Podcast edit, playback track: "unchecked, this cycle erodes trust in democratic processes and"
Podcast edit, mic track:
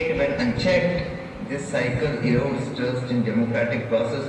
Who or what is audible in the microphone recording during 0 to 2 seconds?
echo only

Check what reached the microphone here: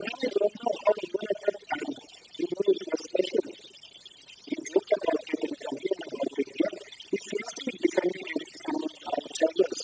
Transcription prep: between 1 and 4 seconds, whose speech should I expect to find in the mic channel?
echo only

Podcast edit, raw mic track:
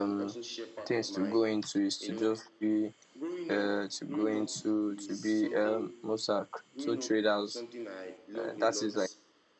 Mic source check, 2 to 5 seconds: both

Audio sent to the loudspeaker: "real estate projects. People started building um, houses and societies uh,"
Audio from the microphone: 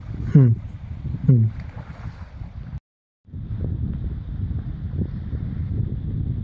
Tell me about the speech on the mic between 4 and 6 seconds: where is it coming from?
neither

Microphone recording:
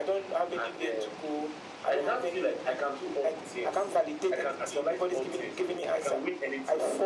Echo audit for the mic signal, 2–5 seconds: echo only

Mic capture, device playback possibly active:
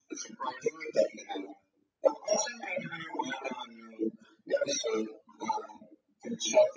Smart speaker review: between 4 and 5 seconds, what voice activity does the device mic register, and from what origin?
echo only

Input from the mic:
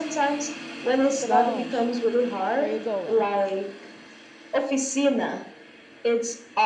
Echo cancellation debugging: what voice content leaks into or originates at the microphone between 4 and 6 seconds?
echo only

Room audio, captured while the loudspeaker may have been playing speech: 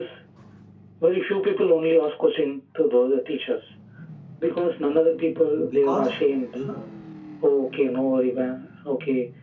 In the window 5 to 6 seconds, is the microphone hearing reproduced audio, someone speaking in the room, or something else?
both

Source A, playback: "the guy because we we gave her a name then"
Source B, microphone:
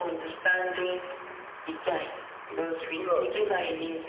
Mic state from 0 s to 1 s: echo only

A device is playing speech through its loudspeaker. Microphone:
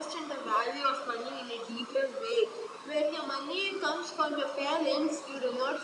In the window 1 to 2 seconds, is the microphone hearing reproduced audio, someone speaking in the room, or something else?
echo only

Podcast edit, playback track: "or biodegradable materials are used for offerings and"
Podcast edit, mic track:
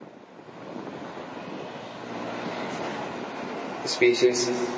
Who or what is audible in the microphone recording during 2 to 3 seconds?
neither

